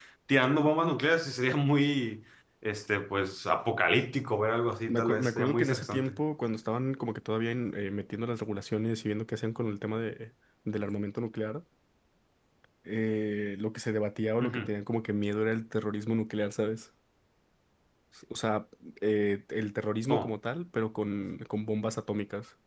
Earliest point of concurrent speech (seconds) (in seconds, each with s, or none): 4.9 s